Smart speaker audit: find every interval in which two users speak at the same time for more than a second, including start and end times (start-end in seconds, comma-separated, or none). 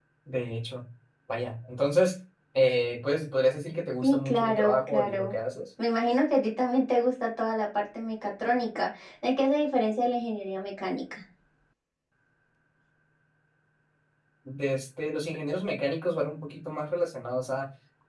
4.0-5.4